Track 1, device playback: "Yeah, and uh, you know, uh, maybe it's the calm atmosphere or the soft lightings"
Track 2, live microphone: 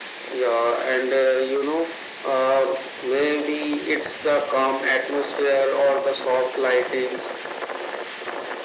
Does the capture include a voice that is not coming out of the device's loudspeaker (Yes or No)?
No